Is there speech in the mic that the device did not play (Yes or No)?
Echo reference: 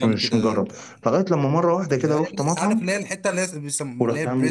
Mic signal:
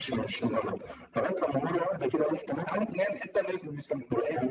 No